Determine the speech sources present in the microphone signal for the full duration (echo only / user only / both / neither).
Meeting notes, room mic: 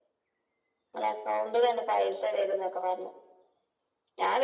echo only